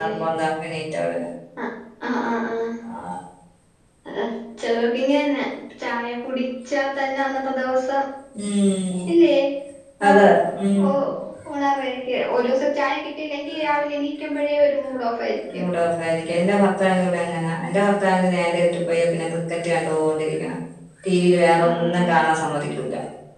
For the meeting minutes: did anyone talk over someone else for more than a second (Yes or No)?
No